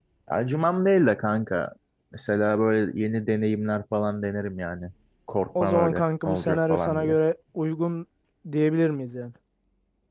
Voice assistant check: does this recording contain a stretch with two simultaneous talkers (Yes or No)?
Yes